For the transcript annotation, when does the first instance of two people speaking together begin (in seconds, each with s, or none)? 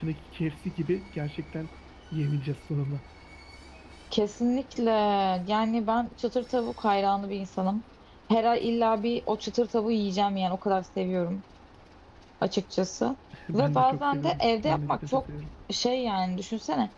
13.5 s